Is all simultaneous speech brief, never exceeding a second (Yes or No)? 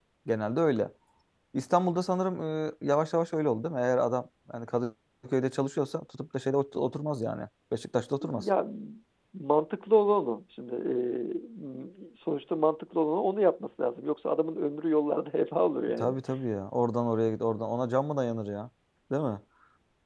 Yes